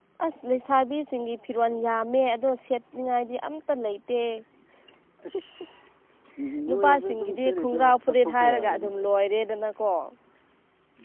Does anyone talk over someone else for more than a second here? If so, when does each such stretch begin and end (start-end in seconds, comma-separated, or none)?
6.7-8.9